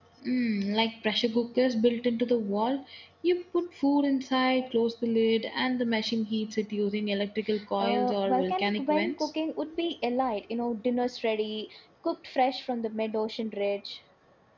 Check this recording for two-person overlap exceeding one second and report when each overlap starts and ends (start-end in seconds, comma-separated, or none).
7.8-9.3